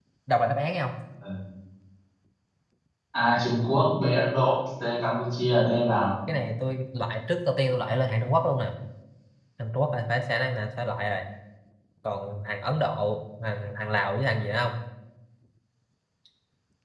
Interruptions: none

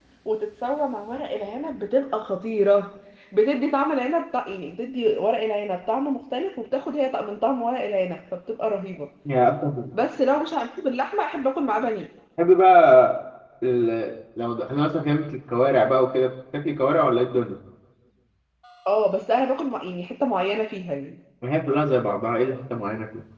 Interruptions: none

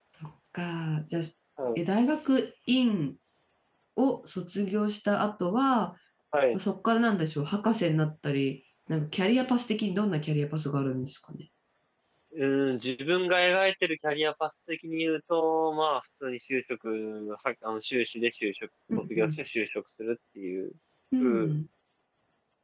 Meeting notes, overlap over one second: none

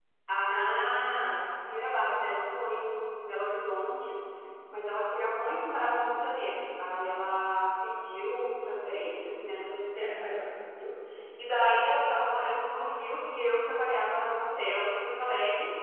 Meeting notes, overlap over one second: present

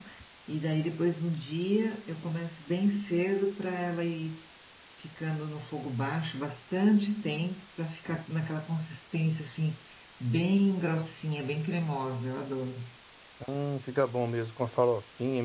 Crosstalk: none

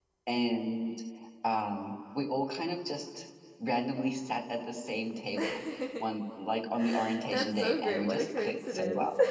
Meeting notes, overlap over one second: present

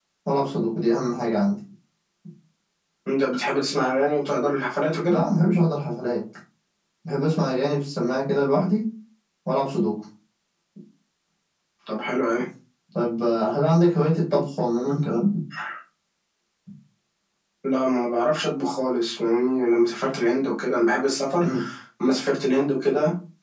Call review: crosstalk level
none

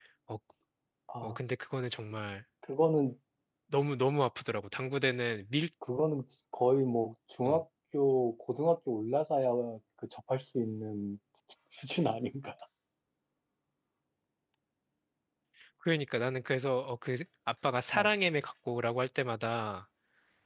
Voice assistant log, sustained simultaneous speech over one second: none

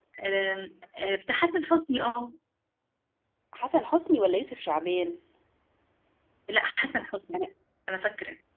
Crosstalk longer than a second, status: none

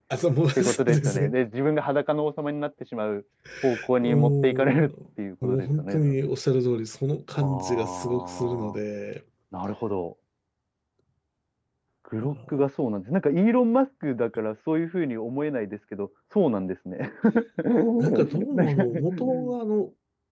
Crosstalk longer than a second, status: present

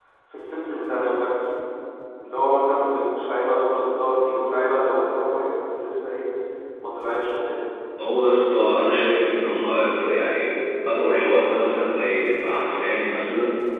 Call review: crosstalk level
none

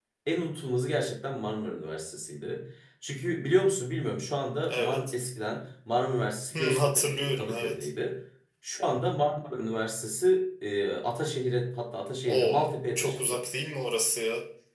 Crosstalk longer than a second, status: present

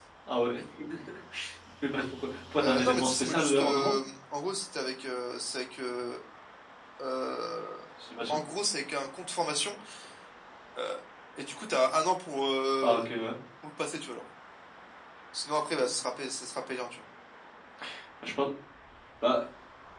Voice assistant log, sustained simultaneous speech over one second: present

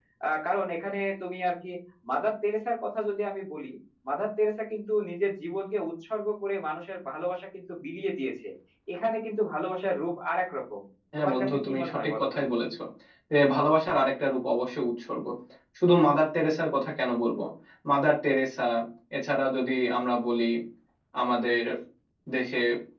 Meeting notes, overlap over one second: present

